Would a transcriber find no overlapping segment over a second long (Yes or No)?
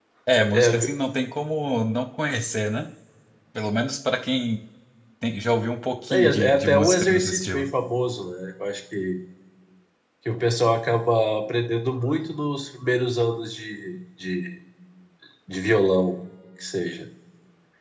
No